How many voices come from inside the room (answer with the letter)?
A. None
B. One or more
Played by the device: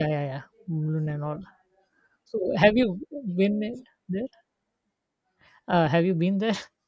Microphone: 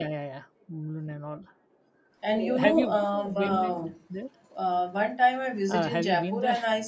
B